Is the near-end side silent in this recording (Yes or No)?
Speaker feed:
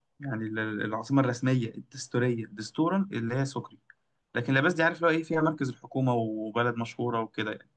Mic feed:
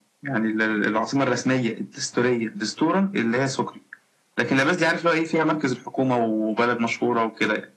Yes